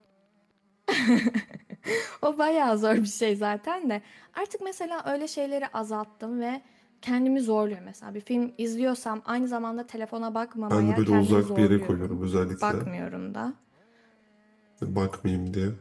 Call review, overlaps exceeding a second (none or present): present